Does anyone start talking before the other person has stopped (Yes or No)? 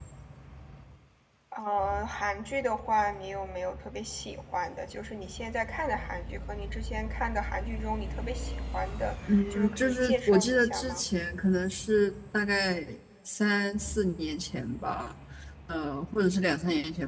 Yes